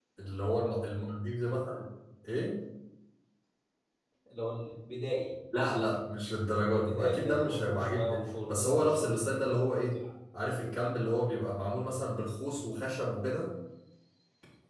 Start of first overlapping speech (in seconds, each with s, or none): 6.7 s